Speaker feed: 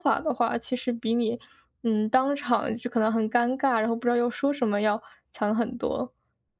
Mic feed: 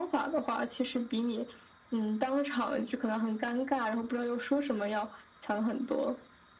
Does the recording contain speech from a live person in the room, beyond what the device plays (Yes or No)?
No